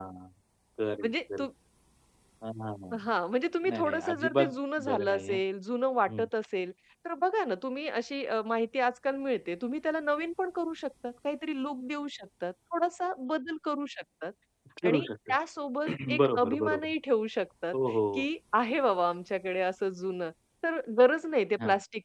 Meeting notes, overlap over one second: present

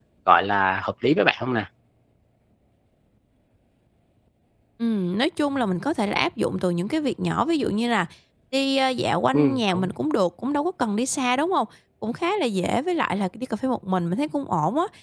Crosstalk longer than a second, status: none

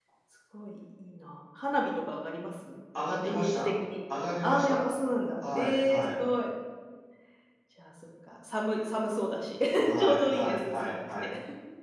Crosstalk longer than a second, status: present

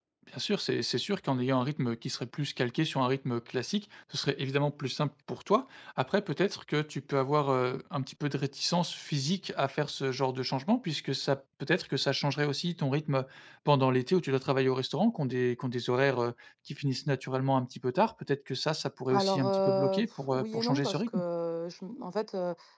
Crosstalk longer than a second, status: present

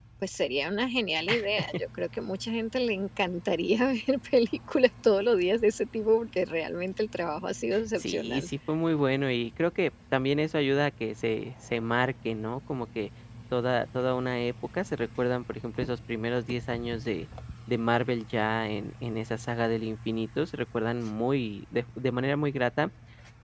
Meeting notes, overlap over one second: none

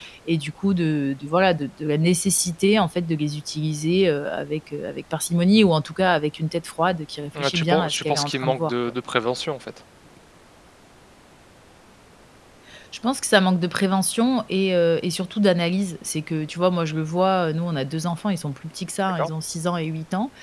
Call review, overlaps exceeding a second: present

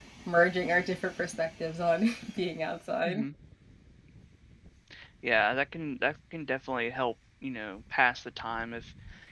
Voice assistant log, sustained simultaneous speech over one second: none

